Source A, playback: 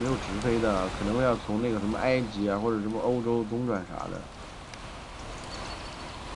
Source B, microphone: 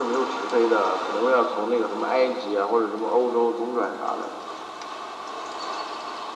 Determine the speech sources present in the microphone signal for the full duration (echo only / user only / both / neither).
echo only